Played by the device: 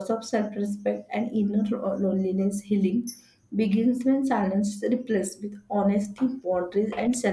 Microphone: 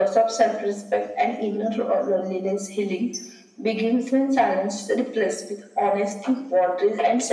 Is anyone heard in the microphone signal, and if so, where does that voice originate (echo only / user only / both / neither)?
echo only